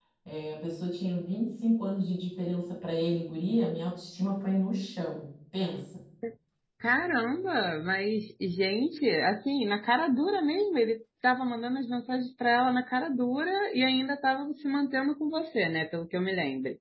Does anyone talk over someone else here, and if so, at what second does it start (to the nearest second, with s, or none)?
none